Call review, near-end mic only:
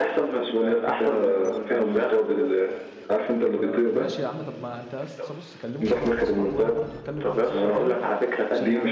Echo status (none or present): present